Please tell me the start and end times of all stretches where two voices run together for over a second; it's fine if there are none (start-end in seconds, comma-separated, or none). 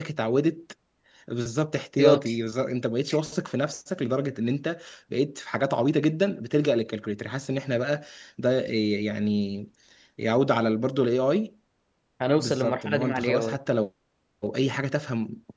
12.4-13.6